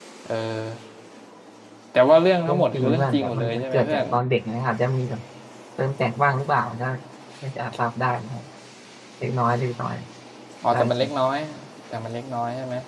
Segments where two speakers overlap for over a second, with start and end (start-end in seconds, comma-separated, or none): 2.5-4.0